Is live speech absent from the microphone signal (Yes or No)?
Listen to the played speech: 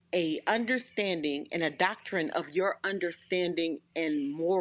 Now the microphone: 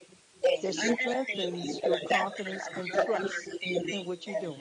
No